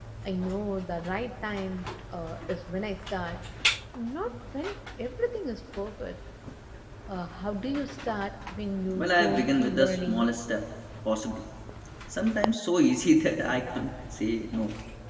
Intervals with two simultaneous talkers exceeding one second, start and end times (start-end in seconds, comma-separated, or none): 9.0-10.3